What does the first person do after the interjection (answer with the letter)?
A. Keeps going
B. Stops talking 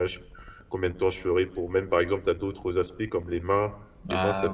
A